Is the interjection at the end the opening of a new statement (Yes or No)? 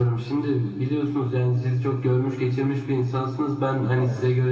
No